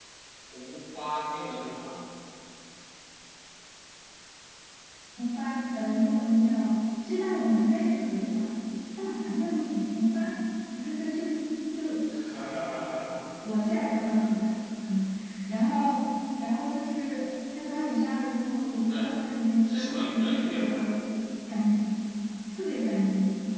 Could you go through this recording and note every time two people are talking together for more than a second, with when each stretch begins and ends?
19.6-21.0

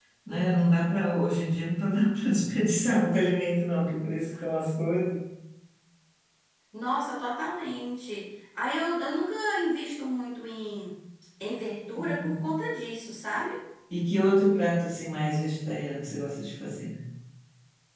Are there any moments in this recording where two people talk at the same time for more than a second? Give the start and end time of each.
none

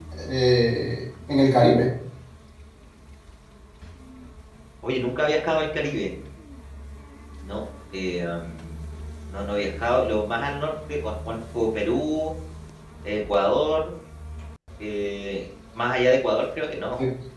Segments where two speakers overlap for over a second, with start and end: none

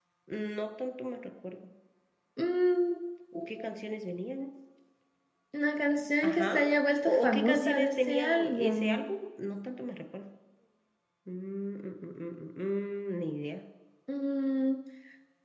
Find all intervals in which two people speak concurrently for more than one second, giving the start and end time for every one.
7.0-9.0

